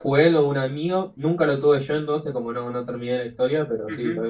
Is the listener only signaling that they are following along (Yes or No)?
No